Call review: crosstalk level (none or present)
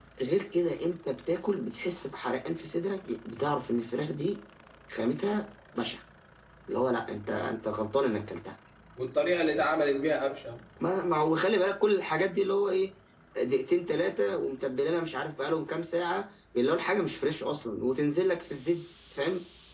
none